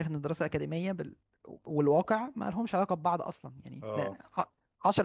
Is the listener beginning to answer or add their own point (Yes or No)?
No